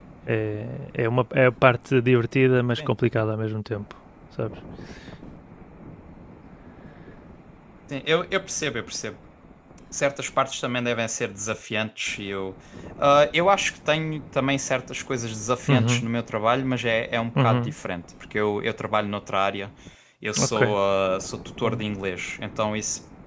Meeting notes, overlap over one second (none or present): none